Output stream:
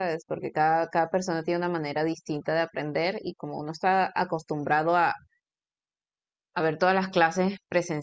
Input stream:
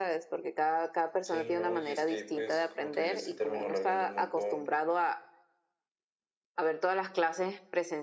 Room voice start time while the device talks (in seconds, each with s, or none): 1.2 s